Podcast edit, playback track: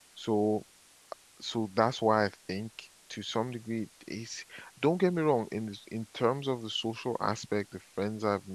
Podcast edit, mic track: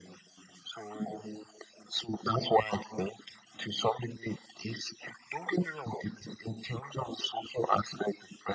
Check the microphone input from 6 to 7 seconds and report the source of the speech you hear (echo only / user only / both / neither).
echo only